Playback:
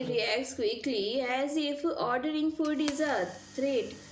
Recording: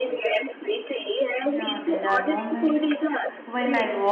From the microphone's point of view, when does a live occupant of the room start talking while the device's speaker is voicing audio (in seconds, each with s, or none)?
1.4 s